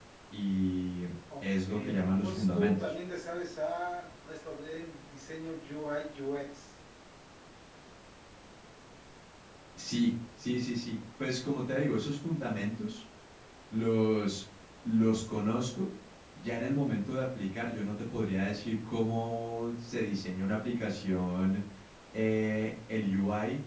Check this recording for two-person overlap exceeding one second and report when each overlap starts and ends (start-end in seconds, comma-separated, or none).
1.4-2.9